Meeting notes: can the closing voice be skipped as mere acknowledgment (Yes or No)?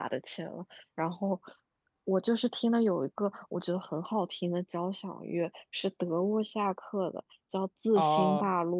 Yes